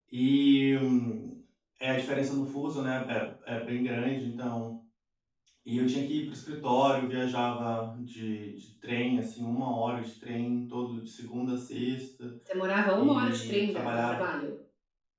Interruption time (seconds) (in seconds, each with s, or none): 12.9 s